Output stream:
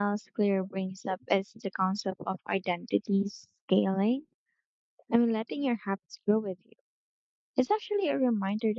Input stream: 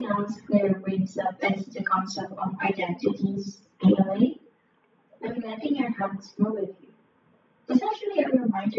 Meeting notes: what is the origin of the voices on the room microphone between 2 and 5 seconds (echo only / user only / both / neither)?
echo only